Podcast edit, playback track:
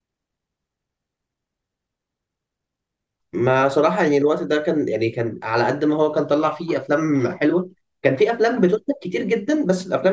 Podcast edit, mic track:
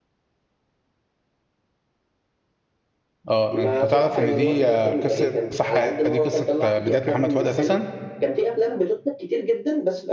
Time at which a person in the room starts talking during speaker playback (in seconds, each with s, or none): 3.3 s